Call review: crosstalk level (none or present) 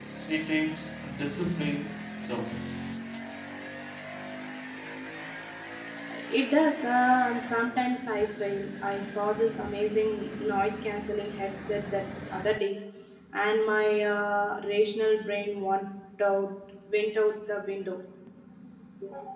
none